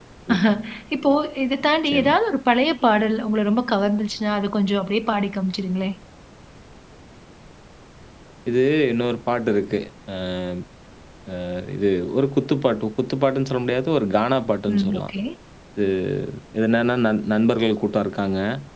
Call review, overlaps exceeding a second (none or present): none